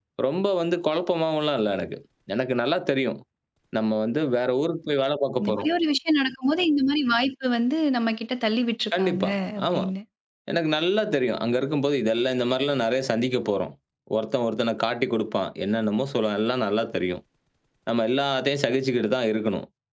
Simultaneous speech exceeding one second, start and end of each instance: none

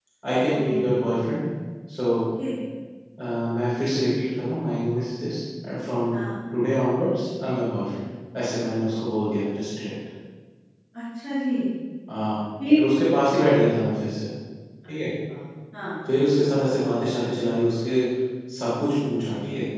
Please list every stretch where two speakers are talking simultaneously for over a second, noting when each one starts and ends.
none

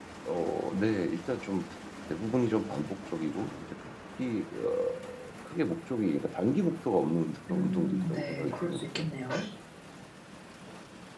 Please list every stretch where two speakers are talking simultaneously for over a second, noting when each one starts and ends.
7.5-9.1

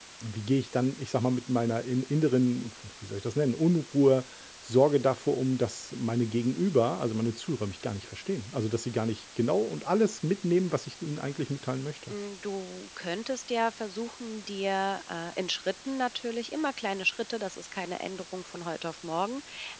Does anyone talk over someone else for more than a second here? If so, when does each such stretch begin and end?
none

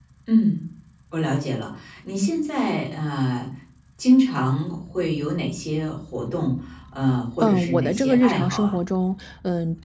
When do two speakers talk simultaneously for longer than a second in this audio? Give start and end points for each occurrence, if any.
7.4-8.7

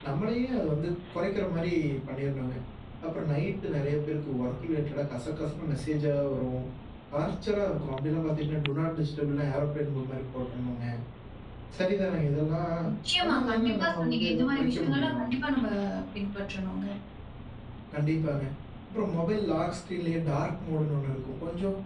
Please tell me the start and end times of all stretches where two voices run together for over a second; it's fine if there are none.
13.2-15.3

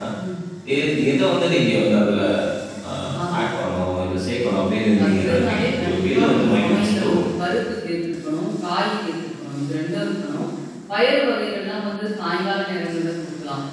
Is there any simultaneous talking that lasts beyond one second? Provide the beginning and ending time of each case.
5.0-7.2

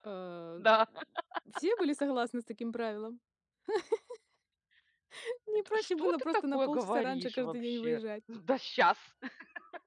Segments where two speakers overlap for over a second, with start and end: 5.7-8.0

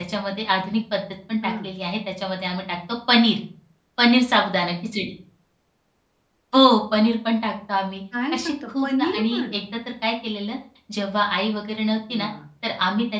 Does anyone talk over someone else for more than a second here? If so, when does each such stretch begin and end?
8.3-9.6

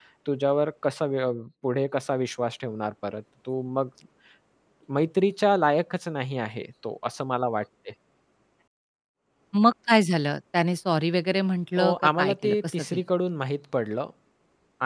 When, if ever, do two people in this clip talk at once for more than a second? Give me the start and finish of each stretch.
11.8-13.0

